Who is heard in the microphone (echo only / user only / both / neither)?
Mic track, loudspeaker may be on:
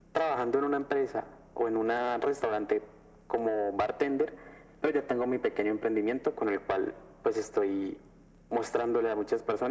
echo only